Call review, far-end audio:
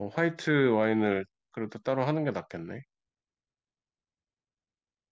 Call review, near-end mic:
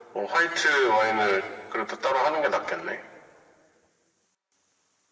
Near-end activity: none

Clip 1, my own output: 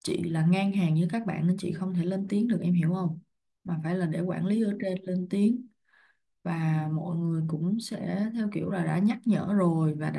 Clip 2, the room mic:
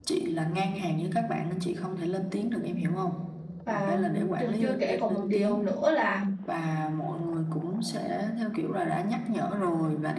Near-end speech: present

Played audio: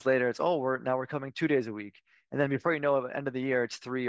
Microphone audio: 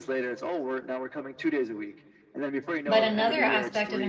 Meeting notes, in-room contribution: present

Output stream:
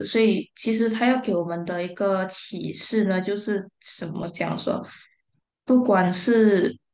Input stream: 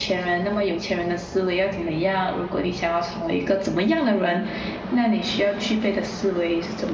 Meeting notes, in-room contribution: present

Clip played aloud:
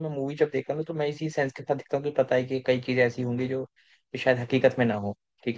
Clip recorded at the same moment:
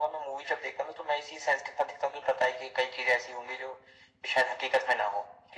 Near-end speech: none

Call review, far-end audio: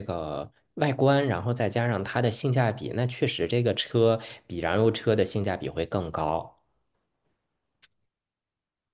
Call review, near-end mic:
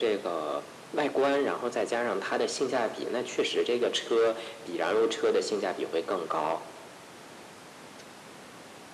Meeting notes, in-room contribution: none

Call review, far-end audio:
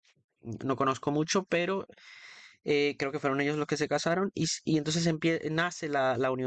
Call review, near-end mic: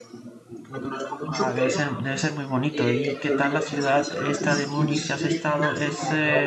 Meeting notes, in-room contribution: present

